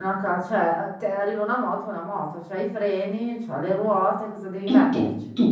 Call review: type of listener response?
taking over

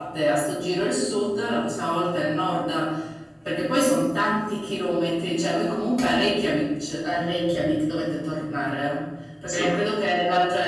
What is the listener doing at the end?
listening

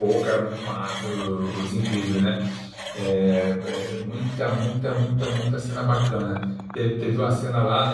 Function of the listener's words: listening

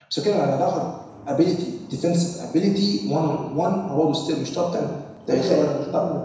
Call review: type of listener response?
taking over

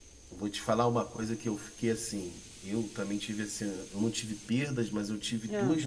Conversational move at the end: listening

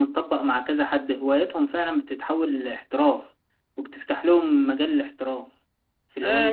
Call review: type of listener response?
taking over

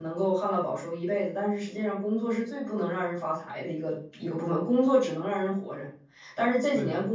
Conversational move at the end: listening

